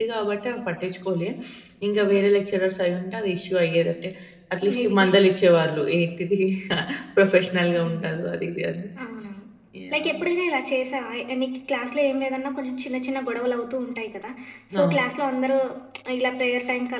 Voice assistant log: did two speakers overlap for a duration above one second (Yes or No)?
No